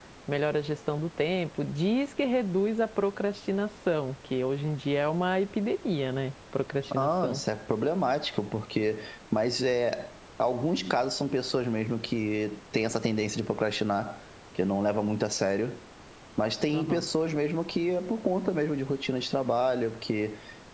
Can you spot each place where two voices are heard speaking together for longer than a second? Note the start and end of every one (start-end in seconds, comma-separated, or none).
none